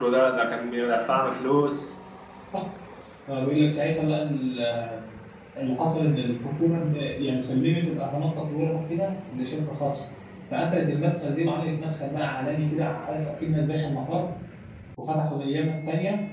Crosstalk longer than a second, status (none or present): none